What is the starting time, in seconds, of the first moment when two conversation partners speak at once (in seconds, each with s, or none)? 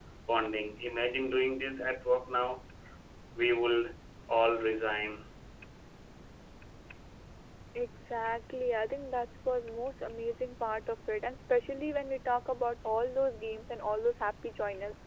none